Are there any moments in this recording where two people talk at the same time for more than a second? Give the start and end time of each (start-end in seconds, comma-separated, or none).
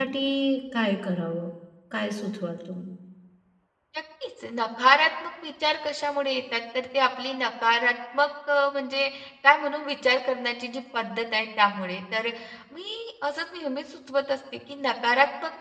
none